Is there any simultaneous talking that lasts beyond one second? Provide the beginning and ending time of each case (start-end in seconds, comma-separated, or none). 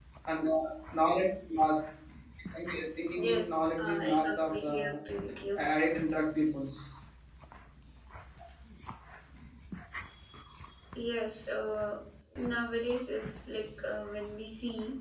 3.3-4.7